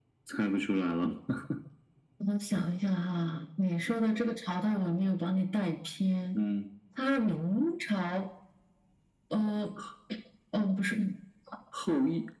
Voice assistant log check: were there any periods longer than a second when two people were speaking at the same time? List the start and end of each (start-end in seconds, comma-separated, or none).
none